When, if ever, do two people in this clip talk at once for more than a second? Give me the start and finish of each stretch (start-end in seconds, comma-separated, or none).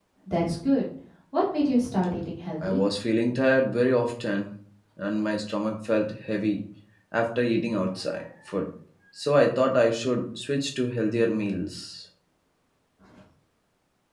none